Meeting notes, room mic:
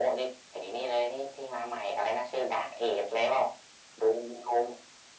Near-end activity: none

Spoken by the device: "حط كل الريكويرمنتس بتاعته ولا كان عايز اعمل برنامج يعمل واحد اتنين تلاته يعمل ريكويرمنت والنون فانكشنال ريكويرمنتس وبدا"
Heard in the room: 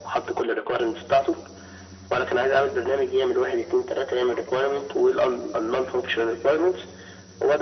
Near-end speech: none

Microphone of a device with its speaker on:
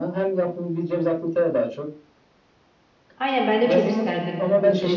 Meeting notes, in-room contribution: present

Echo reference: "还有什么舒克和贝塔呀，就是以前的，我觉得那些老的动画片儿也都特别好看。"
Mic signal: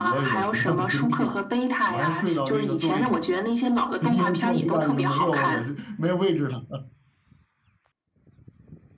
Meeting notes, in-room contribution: present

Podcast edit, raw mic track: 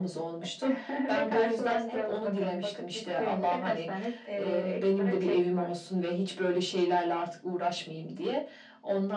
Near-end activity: none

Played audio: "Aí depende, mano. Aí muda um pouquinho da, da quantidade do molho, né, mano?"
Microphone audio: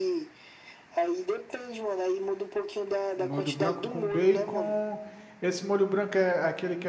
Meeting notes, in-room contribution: present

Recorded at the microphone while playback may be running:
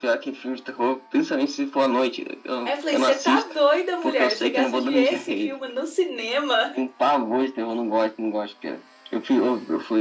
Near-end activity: present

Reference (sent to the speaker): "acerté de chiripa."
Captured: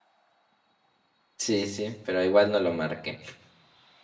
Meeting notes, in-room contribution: present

